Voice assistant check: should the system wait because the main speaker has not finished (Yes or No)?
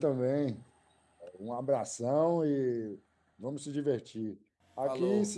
Yes